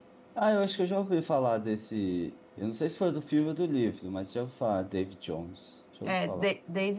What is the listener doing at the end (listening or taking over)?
taking over